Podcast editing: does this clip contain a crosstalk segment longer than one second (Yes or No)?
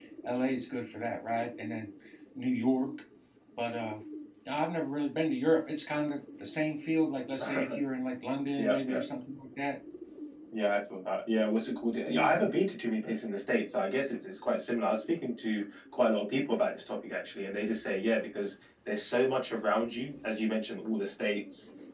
No